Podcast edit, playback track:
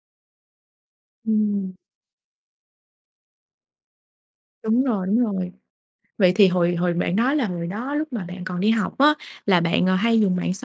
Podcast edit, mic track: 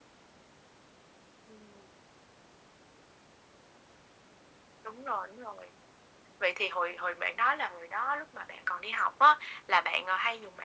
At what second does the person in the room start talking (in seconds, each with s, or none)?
none